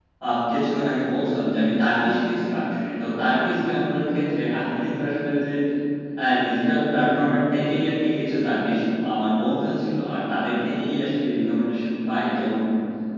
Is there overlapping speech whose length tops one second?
No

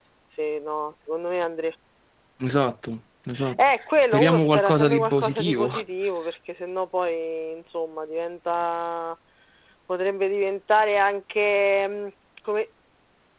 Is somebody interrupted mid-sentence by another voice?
Yes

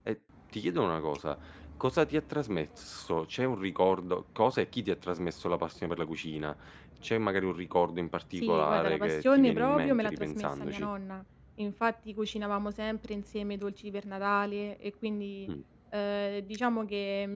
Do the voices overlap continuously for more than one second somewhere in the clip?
Yes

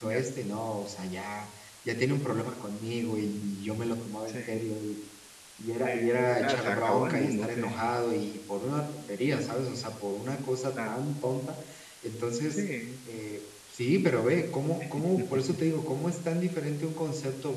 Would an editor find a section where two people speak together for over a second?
Yes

